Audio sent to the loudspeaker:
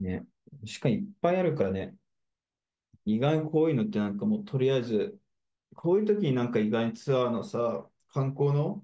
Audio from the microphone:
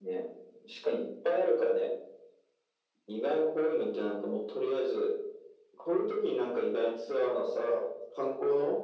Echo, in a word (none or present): present